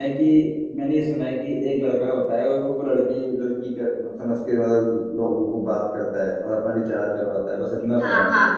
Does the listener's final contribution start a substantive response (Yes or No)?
Yes